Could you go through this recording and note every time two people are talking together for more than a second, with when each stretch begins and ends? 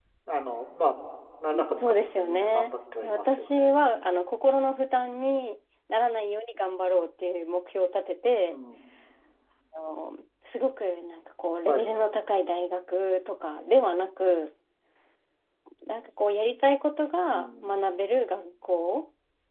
1.8-3.7

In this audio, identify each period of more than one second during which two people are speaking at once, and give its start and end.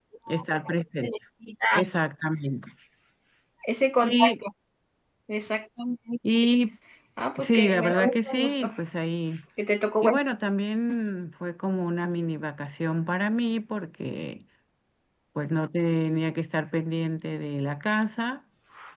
7.4-8.7

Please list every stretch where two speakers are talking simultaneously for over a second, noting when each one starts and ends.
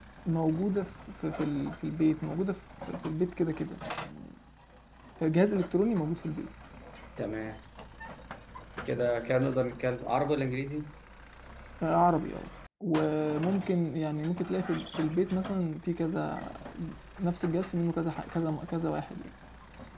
none

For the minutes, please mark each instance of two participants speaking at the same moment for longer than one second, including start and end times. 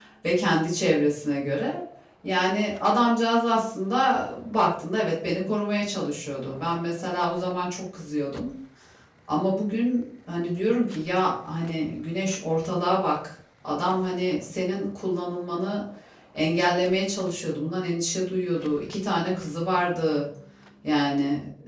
none

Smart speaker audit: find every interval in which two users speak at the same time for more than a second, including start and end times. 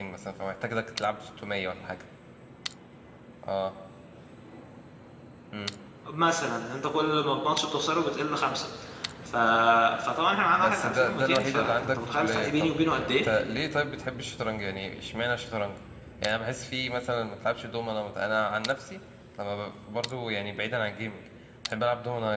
10.6-13.2

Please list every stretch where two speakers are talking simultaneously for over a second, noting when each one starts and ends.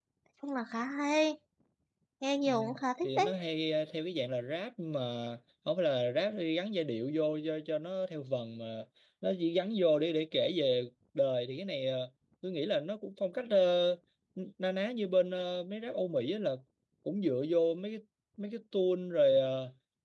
none

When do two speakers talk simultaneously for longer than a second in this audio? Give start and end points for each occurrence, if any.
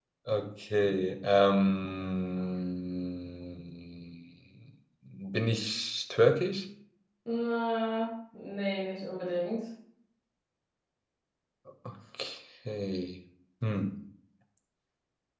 none

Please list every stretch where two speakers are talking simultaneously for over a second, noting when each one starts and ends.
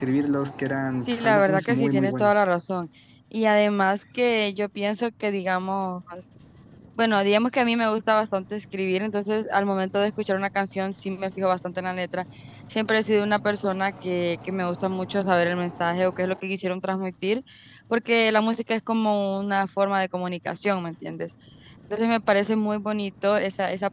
1.0-2.4

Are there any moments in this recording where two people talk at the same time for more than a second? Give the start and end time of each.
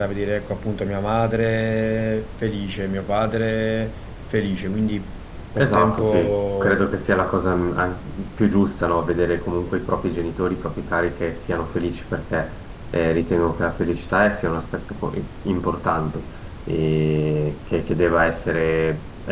5.6-6.9

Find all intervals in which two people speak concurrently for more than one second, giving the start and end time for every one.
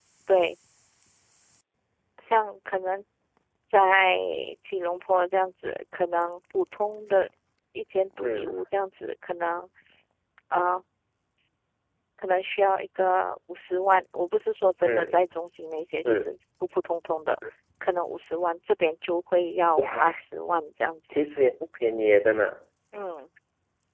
none

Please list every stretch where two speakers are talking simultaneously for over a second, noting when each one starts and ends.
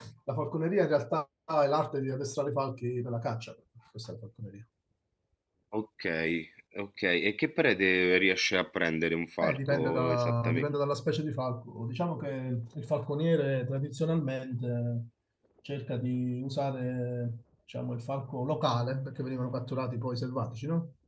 9.4-10.8

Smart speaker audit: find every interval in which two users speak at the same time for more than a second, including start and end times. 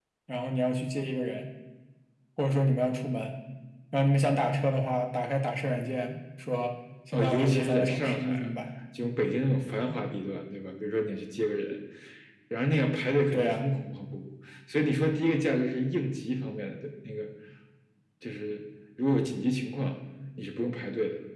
7.1-8.5

